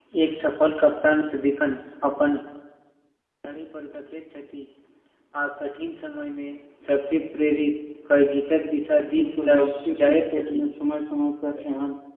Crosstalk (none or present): present